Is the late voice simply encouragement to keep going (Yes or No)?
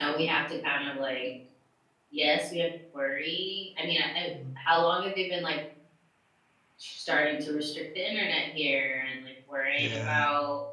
Yes